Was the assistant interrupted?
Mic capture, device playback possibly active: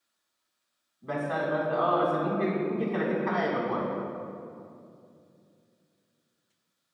Yes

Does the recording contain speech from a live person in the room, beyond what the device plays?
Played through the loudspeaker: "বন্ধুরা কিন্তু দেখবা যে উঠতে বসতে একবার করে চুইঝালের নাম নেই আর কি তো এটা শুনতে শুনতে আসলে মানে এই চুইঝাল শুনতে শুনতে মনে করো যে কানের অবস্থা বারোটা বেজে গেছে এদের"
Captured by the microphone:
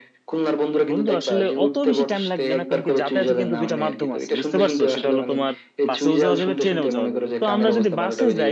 Yes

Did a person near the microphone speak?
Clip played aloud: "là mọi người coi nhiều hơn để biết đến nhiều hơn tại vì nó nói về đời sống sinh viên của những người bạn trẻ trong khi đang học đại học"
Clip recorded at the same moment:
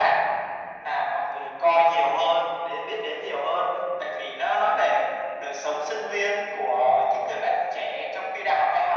No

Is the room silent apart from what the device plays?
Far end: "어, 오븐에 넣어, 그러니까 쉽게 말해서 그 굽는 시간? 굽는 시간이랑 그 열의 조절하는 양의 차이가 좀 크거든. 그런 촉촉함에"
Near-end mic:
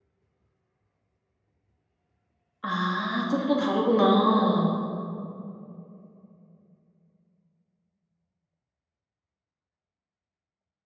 No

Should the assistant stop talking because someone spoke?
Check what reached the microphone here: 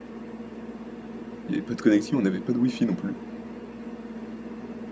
Yes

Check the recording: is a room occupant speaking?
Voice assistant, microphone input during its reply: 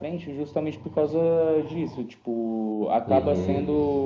Yes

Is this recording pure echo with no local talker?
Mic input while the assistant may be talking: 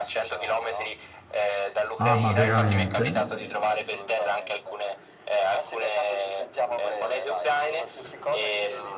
No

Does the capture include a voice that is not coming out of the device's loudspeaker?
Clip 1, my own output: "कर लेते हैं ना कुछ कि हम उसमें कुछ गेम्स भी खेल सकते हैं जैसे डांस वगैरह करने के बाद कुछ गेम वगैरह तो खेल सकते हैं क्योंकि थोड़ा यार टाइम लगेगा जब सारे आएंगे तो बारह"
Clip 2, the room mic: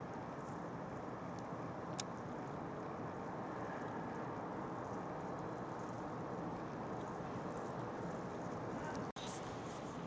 No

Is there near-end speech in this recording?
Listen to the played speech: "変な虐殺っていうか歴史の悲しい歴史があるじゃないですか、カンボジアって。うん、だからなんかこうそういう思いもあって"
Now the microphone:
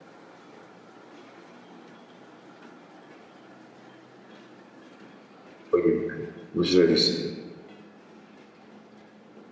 Yes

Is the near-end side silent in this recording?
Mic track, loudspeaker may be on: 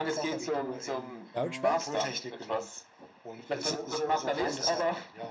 No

